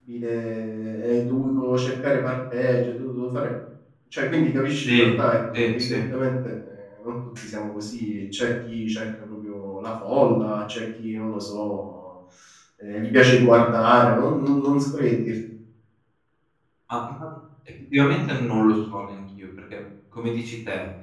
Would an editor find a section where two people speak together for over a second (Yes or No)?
No